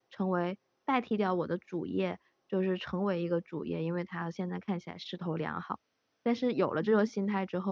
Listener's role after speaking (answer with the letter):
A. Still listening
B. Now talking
A